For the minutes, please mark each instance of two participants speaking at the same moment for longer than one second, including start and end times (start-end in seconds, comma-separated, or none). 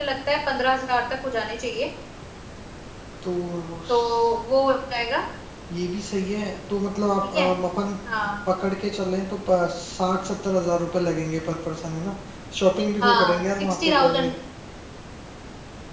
13.0-14.3